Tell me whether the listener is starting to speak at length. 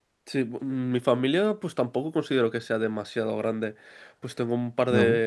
No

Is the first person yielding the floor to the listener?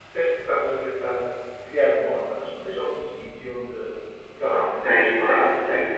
Yes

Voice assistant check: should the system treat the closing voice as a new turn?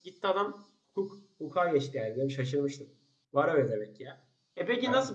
No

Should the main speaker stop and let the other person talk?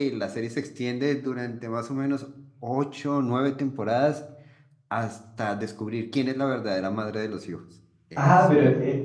Yes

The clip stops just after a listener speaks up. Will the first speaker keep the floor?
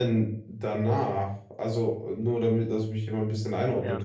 No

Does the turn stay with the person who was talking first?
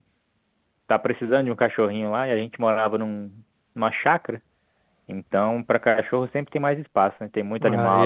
No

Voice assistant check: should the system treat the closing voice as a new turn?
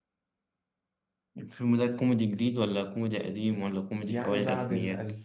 Yes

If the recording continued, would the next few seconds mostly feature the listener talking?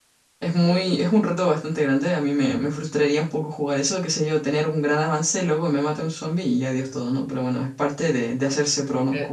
Yes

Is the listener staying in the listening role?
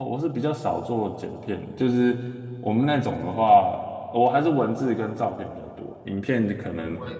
No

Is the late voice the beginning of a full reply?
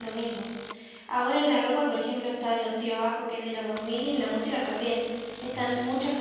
No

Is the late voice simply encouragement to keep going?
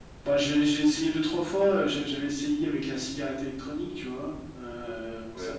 Yes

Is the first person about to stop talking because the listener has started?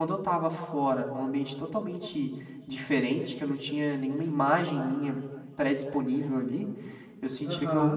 No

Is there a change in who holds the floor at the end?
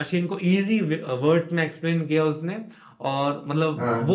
No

